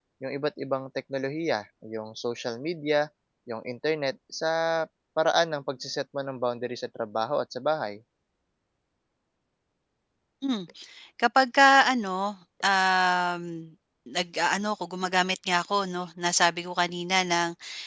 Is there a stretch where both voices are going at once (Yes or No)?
No